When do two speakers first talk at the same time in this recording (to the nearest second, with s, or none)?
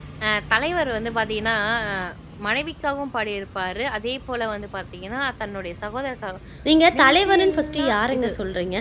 7 s